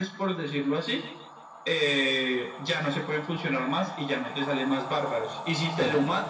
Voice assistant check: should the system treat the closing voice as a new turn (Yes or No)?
No